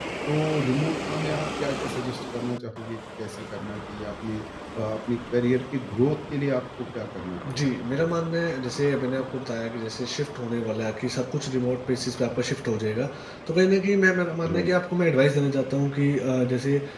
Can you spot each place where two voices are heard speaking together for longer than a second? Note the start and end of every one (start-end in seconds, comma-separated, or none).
none